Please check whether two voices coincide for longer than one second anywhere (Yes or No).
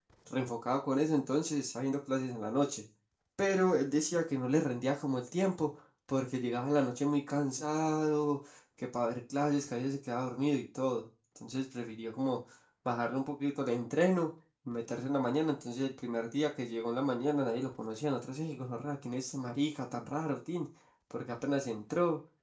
No